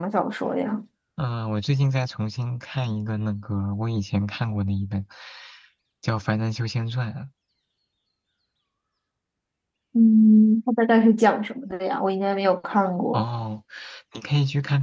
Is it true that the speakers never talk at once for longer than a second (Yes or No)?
Yes